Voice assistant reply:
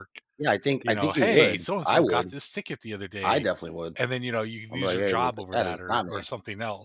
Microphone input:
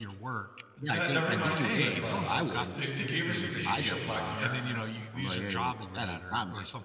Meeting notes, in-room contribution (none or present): present